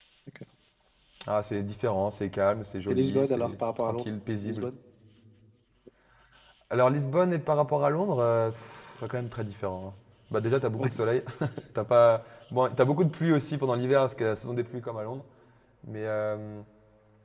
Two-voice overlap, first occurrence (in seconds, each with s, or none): 2.9 s